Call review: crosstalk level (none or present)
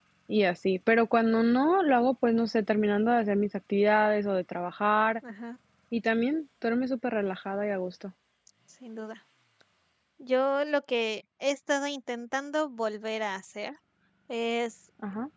none